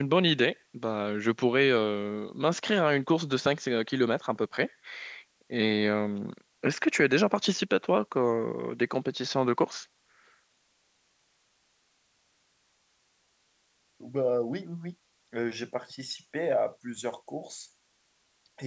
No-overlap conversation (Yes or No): Yes